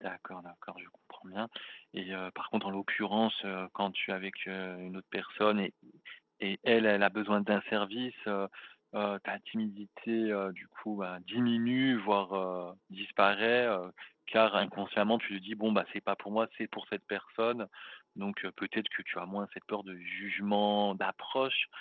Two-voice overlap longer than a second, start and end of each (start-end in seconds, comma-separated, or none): none